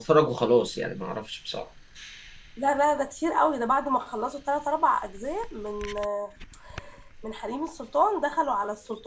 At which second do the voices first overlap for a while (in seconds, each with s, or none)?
none